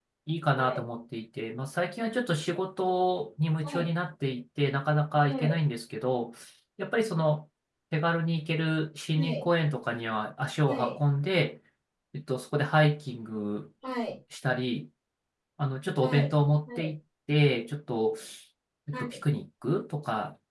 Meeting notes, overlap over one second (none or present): none